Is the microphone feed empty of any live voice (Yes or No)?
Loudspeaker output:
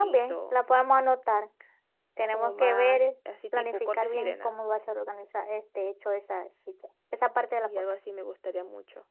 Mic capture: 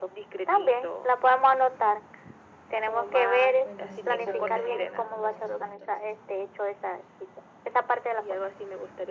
No